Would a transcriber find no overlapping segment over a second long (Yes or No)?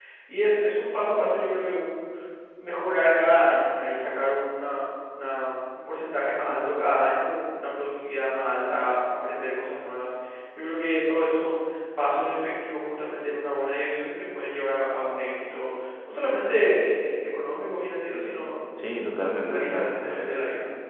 No